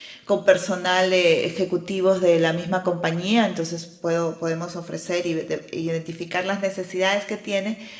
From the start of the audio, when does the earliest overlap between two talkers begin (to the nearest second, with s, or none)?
none